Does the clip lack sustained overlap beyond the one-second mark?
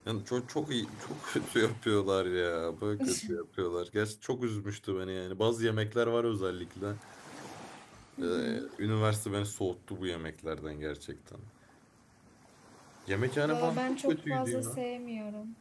No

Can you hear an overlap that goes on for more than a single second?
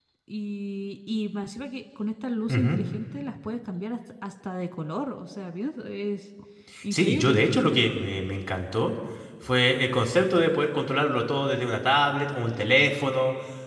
No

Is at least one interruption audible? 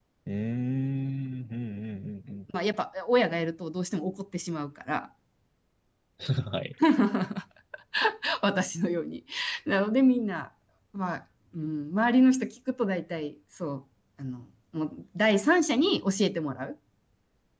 No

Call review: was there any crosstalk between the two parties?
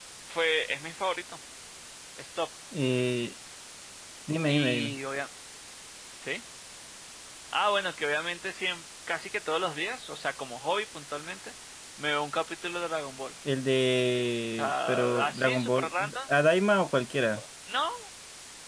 Yes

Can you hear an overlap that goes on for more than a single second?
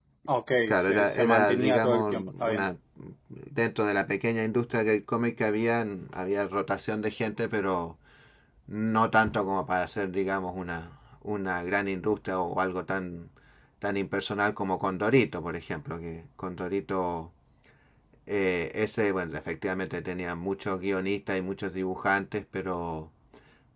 Yes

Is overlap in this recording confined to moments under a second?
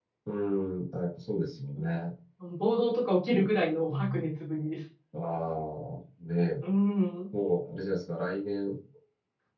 Yes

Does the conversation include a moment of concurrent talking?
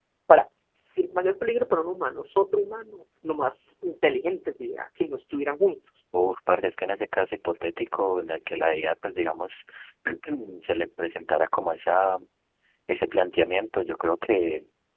No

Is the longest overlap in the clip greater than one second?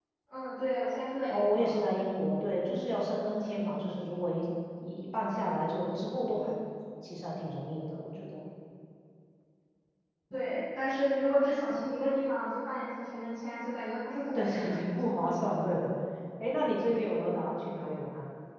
No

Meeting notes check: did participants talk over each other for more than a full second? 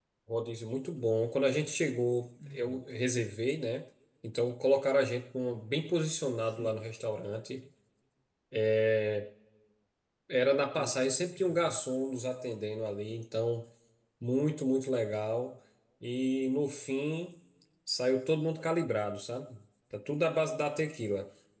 No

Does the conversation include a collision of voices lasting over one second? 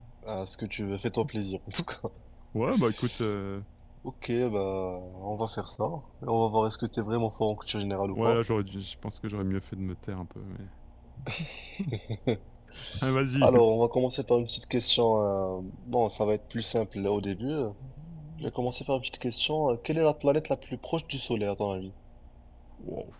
No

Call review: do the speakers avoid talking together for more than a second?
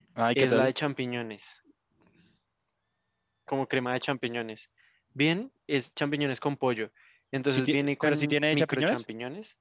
No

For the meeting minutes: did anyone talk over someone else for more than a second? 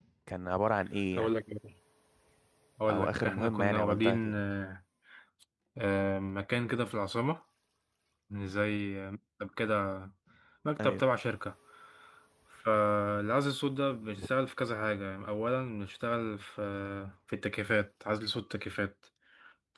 Yes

